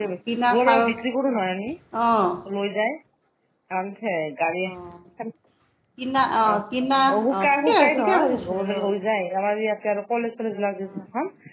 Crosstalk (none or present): present